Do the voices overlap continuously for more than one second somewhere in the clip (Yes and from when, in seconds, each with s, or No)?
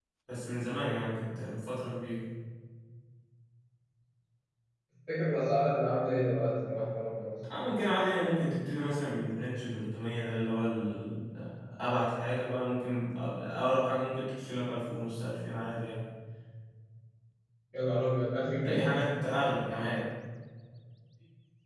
No